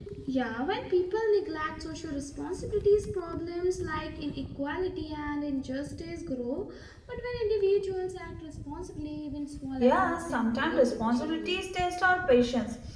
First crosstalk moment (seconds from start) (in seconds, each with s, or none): 9.8 s